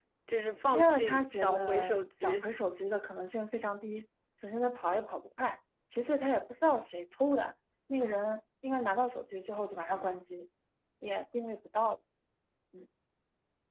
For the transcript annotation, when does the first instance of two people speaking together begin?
0.7 s

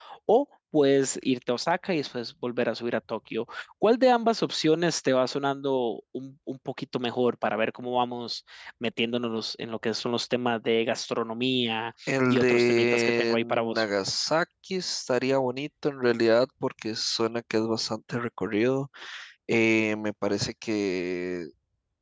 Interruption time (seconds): 12.1 s

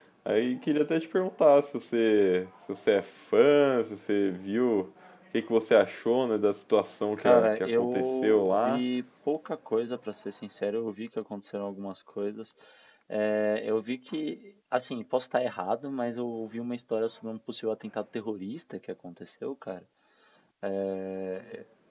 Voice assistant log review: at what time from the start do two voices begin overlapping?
7.2 s

